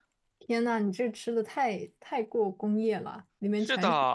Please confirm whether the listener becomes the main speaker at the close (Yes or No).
Yes